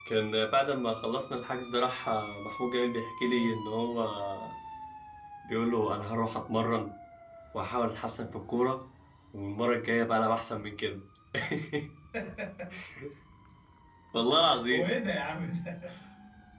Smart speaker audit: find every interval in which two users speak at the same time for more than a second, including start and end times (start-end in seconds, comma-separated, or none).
none